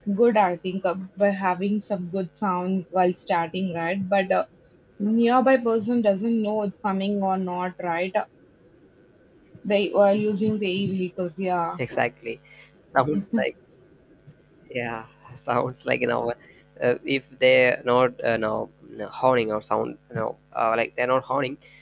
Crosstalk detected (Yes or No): No